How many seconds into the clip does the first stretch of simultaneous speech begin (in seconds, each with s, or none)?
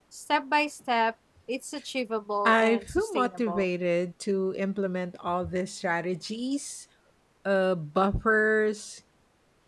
2.5 s